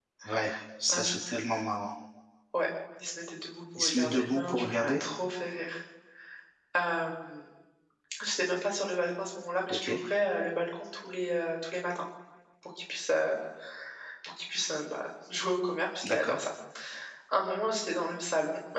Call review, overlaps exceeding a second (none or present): present